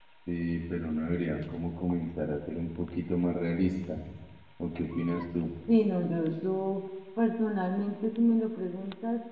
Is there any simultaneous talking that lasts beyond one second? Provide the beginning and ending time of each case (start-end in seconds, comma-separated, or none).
none